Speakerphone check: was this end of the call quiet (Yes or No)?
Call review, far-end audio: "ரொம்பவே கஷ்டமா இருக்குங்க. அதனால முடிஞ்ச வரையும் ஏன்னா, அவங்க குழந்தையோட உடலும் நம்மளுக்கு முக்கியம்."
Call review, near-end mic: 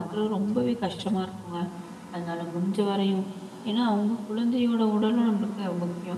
Yes